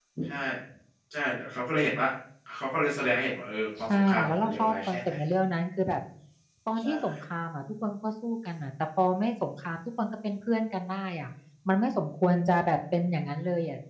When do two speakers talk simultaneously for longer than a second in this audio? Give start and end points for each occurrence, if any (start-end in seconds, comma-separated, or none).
3.8-5.1